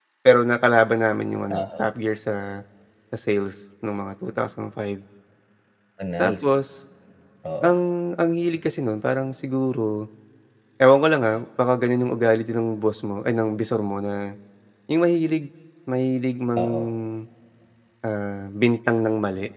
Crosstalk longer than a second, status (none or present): none